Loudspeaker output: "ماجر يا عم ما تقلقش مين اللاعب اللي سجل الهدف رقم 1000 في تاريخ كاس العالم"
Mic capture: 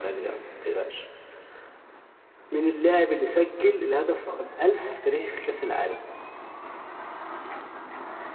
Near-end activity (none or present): none